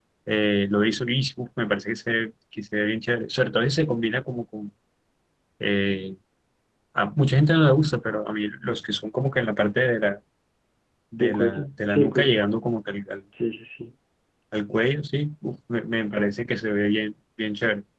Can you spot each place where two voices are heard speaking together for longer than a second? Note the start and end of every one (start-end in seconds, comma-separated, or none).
11.2-12.4